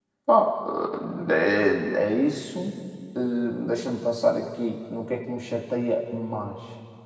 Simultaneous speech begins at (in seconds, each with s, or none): none